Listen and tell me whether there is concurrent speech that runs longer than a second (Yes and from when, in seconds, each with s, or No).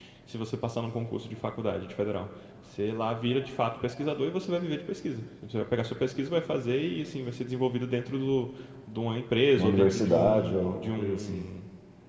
Yes, from 9.6 s